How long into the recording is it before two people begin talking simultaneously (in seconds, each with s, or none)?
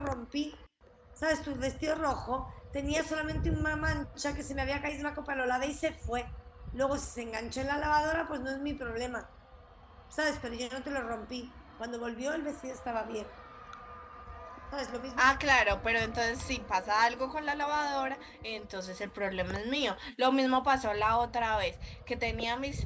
none